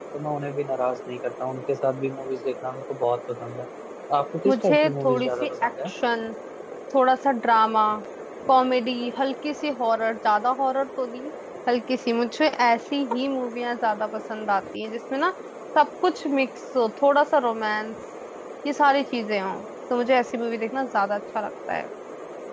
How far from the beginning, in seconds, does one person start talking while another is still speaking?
4.5 s

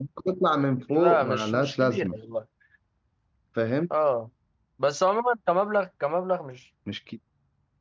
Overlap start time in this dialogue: 0.9 s

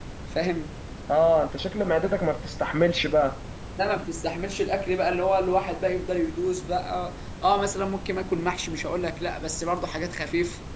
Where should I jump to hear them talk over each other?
none

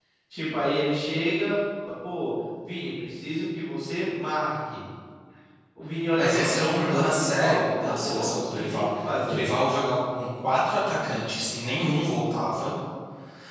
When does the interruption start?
6.2 s

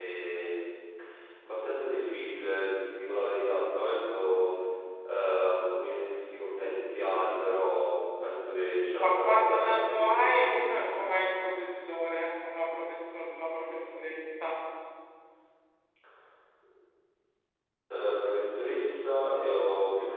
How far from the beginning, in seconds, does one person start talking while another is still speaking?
9.0 s

